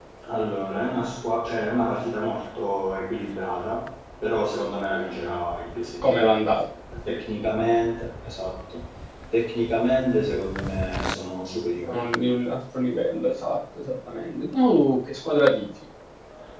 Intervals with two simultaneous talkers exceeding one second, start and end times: none

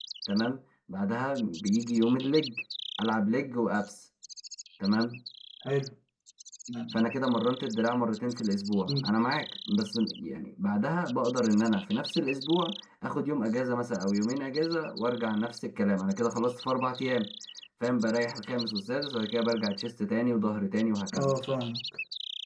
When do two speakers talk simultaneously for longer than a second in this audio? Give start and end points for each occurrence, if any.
none

